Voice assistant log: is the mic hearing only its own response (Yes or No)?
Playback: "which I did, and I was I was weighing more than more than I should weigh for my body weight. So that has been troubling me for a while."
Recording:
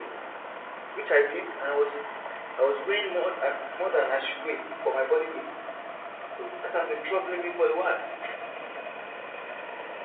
Yes